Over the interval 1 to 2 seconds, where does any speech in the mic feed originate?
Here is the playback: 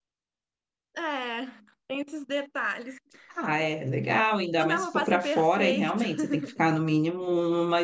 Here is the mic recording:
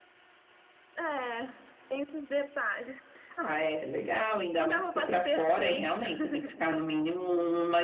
echo only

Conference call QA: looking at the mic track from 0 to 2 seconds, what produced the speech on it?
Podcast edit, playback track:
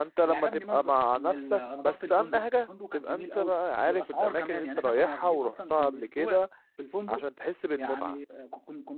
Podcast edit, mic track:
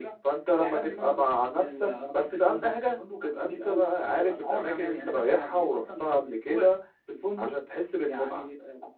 echo only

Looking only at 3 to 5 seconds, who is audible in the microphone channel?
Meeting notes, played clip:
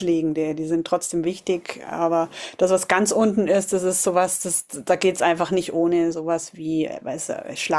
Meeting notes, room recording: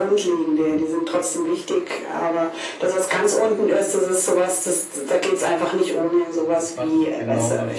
echo only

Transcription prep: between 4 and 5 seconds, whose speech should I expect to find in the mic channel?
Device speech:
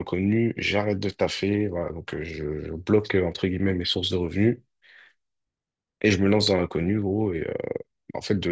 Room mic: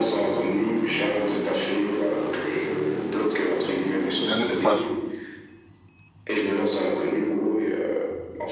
both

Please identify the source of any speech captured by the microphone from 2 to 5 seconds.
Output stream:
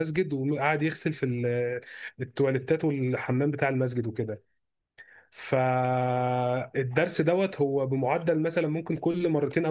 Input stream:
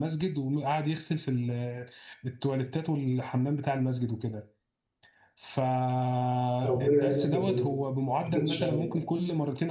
echo only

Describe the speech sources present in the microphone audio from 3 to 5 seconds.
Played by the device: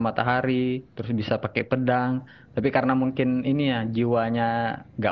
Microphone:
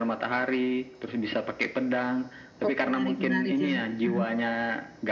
both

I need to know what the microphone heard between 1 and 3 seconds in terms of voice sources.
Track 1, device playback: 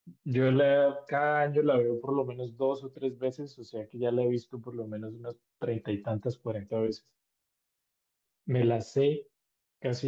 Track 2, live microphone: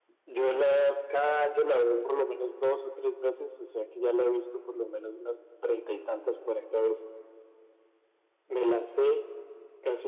echo only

